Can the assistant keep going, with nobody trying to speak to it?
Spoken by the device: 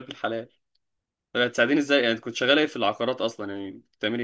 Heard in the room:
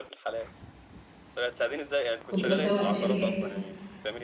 No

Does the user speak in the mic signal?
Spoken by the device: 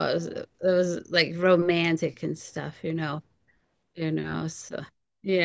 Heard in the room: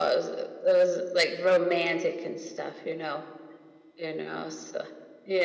No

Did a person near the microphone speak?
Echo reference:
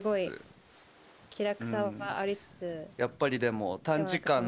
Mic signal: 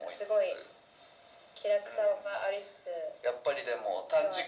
No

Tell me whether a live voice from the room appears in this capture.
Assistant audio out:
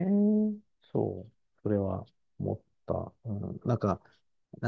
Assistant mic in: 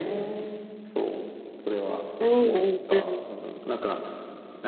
Yes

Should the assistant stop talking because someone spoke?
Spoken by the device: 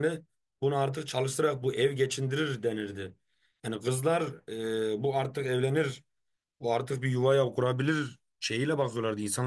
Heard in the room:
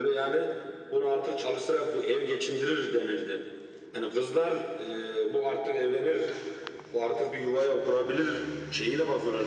No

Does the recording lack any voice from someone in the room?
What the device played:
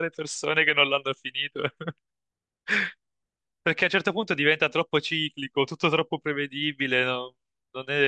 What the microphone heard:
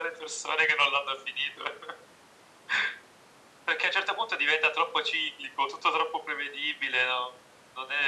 Yes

